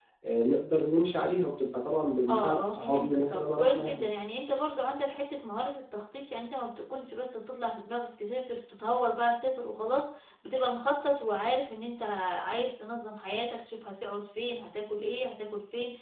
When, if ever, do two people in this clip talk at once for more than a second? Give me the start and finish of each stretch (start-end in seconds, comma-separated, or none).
2.3-4.0